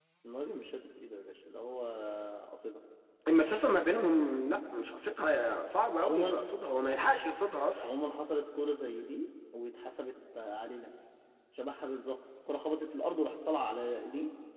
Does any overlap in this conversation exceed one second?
No

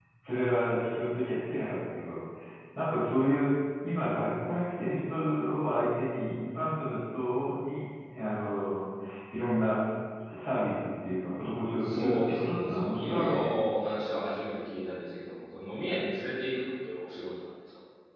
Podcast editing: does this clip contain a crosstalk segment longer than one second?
Yes, from 11.8 s

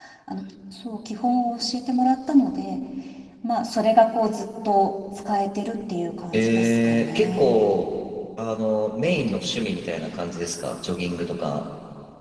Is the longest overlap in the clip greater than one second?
Yes, from 6.3 s

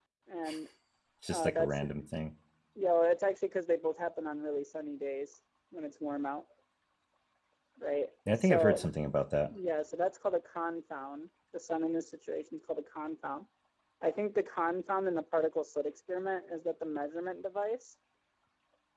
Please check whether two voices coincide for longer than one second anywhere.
No

